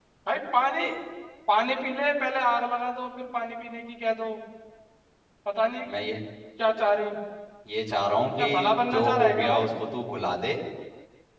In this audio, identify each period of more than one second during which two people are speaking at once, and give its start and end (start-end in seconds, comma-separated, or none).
8.4-9.7